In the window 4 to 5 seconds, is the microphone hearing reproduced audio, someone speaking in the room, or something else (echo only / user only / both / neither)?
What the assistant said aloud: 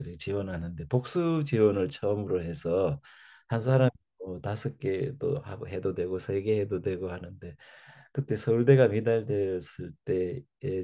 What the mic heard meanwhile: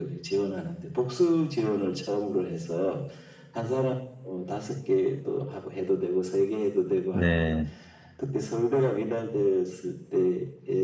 echo only